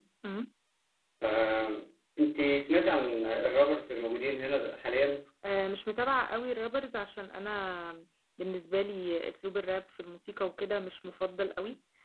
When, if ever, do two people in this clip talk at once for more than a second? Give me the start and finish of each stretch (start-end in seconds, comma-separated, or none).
none